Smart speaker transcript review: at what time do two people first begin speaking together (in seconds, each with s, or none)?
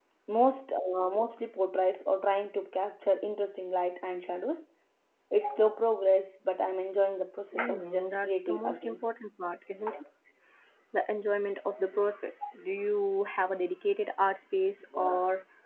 7.6 s